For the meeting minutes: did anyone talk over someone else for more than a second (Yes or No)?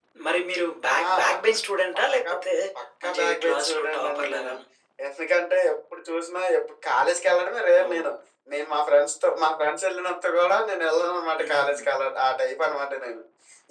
Yes